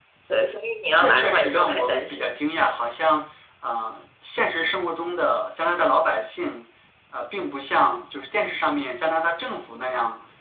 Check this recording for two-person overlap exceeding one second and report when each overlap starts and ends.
0.9-2.4

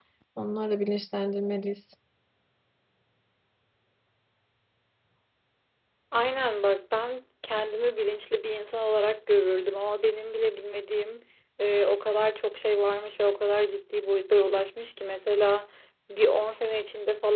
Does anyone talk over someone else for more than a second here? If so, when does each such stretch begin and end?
none

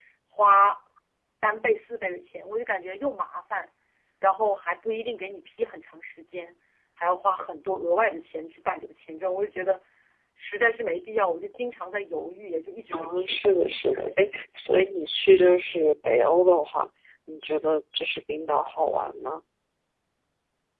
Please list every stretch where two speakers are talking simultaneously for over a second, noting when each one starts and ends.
12.9-14.4

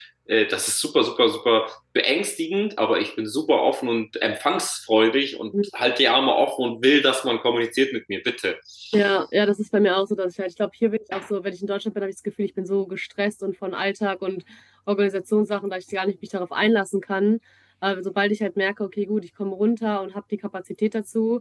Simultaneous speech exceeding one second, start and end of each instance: none

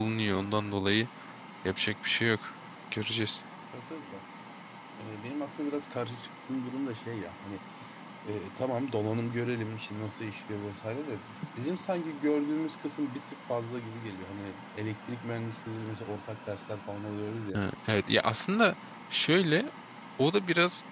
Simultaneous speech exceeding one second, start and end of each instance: none

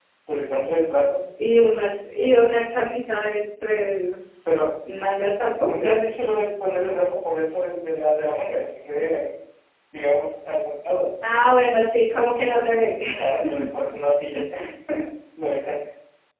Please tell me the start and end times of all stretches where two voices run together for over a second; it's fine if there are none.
none

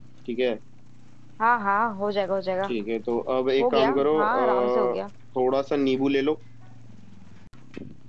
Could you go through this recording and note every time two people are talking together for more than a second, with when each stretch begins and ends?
3.6-5.0

